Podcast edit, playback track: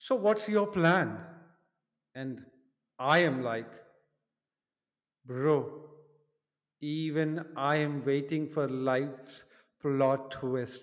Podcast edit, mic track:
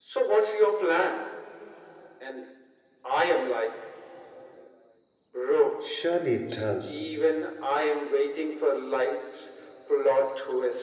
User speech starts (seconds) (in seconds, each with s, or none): 5.8 s